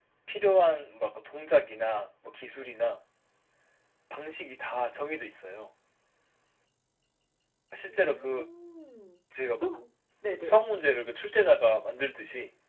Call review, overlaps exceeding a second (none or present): none